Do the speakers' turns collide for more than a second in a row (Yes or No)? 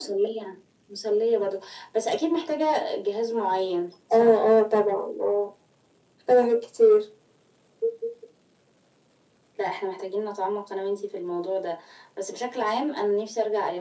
No